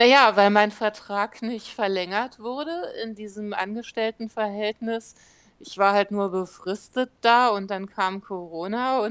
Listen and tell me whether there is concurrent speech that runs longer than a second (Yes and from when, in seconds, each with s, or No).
No